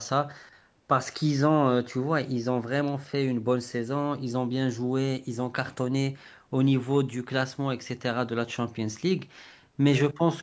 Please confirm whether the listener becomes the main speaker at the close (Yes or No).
No